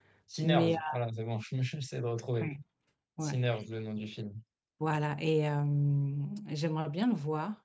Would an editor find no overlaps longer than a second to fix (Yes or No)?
Yes